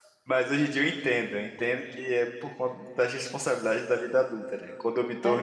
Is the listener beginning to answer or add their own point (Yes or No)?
No